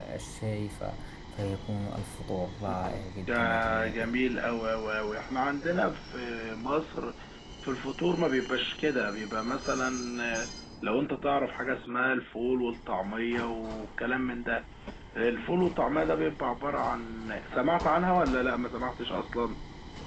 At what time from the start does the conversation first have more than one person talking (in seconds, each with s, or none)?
2.7 s